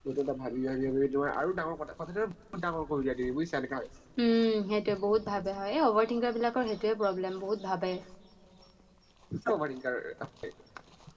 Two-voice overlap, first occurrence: none

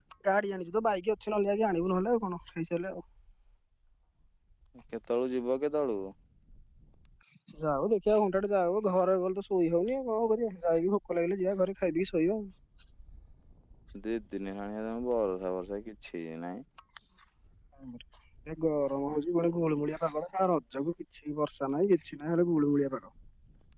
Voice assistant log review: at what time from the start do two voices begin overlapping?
none

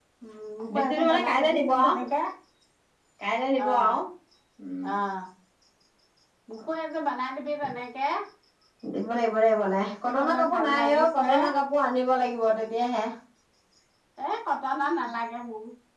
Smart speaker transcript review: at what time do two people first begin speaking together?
0.7 s

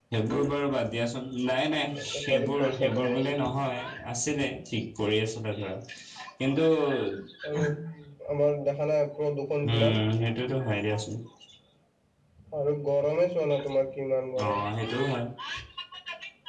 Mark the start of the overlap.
1.9 s

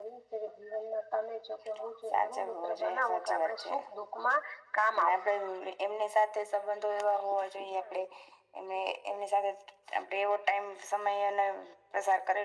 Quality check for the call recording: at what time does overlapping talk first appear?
2.1 s

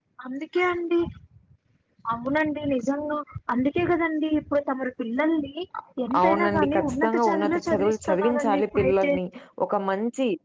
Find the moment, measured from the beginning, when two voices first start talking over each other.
6.2 s

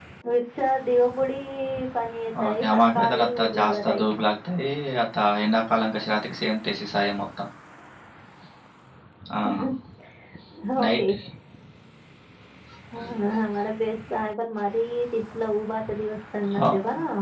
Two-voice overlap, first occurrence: 2.4 s

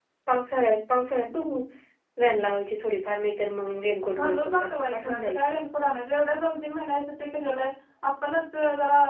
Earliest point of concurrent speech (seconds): 4.1 s

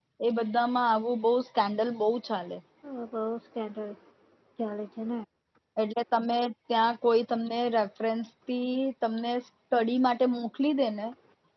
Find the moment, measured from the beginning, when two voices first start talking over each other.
none

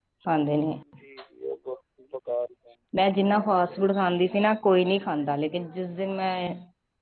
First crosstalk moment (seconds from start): none

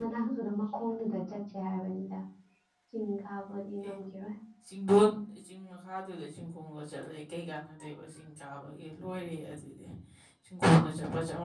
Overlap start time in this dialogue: none

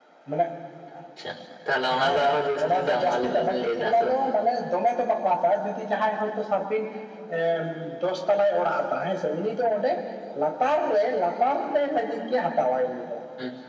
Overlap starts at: 1.8 s

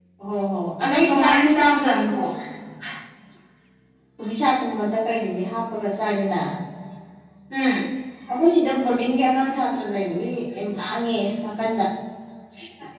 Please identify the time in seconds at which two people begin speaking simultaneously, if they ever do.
0.8 s

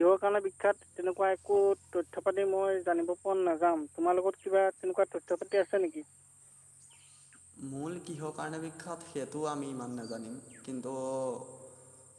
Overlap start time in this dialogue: none

